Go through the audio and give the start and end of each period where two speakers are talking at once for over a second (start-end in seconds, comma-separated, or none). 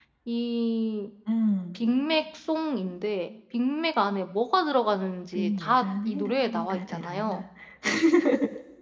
5.3-7.4